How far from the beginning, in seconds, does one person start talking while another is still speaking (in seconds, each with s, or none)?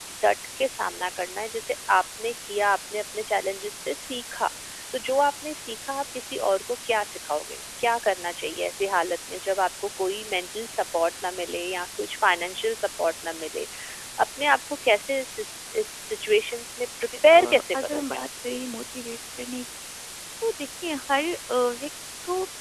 17.3 s